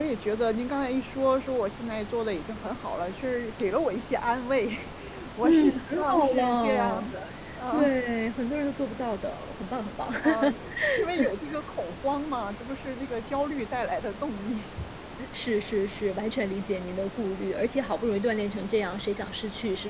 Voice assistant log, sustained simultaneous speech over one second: present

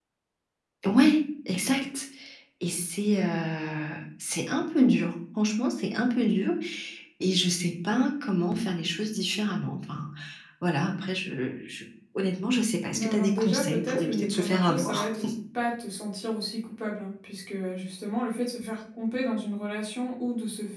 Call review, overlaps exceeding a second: present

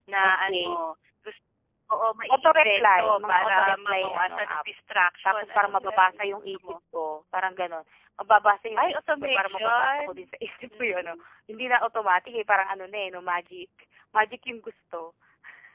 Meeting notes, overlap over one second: present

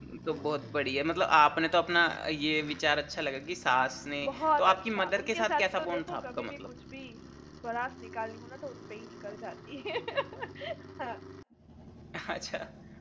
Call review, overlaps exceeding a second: present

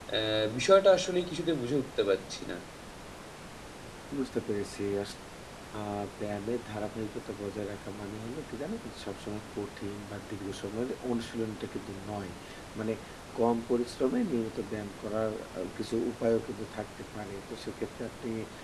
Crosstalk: none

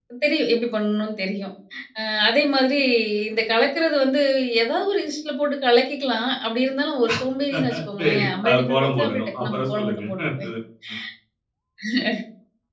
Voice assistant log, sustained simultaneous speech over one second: present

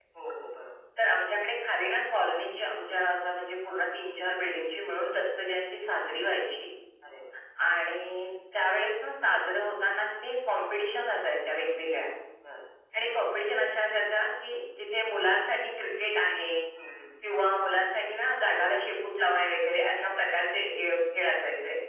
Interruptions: none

